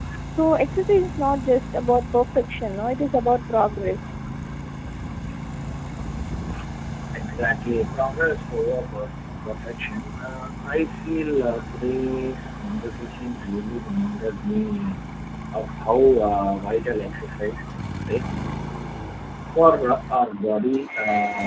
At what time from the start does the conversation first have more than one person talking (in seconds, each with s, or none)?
none